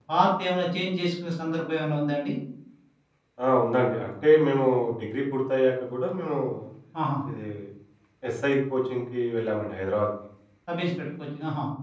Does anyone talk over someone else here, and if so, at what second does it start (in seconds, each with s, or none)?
none